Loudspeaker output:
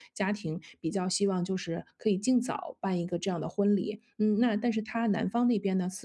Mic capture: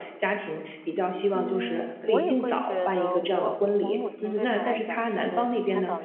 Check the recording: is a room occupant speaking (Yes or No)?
Yes